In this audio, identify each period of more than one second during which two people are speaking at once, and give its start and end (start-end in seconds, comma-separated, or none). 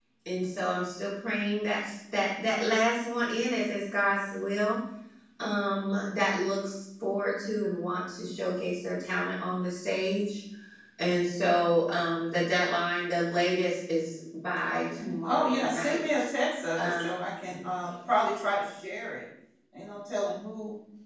14.6-16.3